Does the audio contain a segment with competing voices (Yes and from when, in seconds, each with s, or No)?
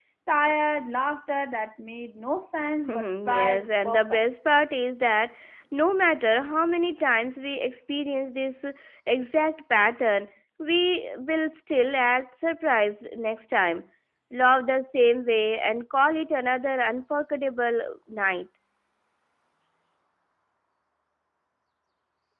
Yes, from 2.9 s